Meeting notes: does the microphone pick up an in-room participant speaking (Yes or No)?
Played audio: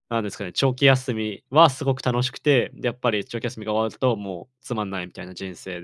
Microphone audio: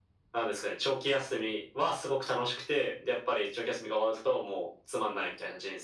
No